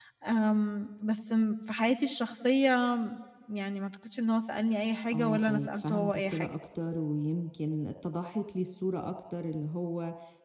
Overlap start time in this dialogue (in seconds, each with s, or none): 5.1 s